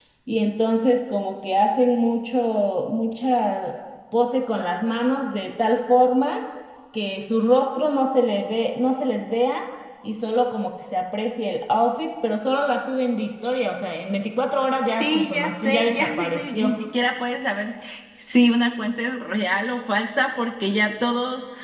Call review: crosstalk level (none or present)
present